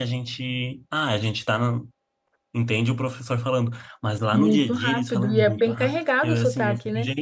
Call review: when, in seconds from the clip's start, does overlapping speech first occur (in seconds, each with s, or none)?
4.3 s